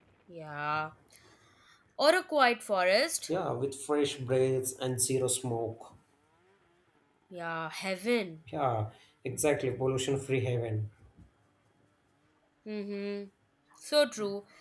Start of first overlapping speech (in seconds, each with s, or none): none